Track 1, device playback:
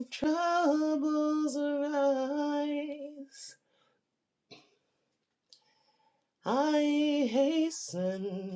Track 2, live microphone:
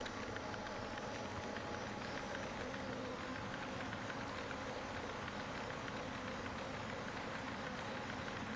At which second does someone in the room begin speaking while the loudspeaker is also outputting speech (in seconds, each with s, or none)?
none